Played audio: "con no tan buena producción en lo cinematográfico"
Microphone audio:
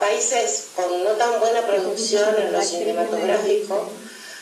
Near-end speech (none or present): present